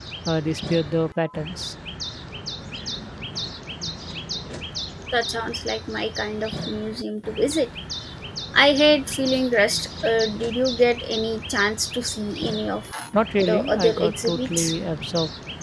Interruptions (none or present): present